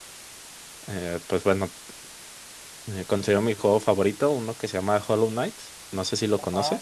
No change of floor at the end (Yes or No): No